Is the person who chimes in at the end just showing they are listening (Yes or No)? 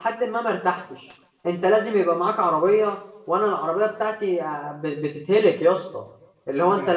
Yes